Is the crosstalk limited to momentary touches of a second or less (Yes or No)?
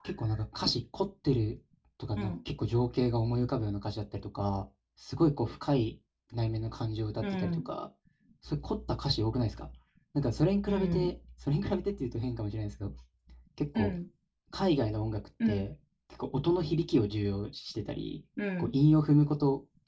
Yes